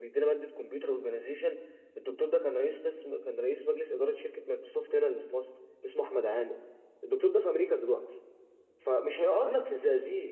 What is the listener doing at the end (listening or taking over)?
listening